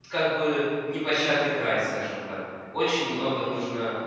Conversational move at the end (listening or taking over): listening